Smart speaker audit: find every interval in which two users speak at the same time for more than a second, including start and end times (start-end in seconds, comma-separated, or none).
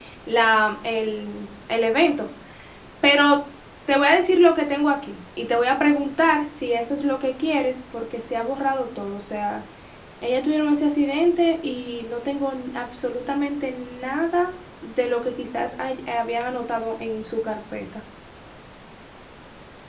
none